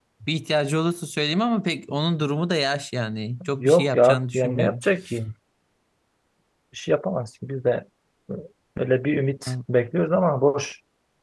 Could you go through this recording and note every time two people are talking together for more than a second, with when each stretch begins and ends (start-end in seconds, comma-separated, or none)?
3.6-4.8